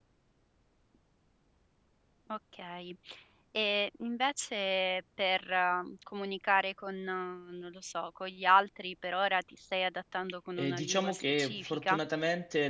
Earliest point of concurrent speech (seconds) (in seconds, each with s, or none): 10.6 s